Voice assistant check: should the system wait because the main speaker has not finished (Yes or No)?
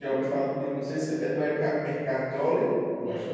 No